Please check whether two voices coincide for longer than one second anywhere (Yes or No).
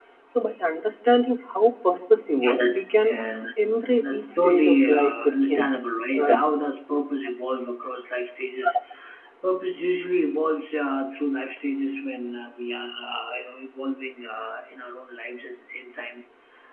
Yes